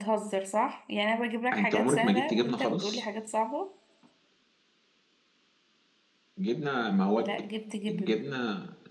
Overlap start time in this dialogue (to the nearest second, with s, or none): 2 s